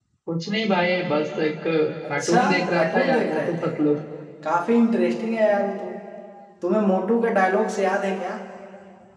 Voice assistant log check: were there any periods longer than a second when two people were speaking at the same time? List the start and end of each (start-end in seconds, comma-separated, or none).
2.1-3.7